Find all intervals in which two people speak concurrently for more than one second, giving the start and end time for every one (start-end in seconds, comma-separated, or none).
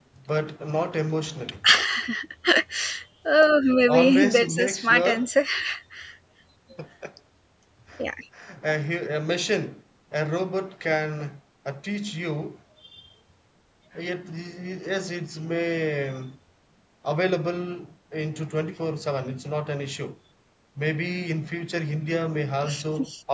3.9-5.2